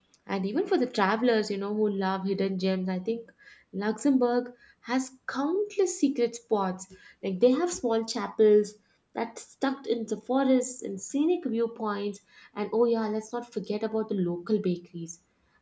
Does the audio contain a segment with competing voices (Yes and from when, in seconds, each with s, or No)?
No